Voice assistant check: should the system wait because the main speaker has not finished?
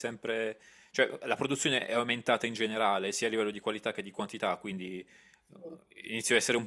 Yes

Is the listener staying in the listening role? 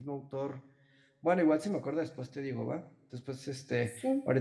Yes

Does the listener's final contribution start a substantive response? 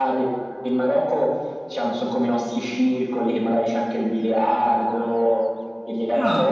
No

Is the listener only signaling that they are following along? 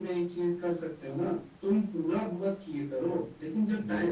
Yes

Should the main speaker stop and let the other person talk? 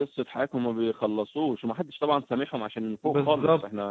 Yes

